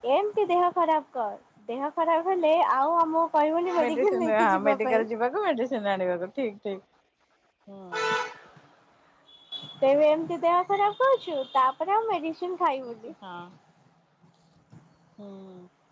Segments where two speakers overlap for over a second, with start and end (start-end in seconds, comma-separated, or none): 3.8-5.0